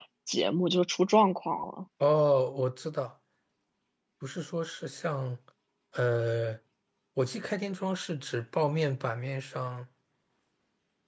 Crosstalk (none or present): none